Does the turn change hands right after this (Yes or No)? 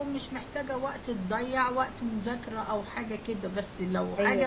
No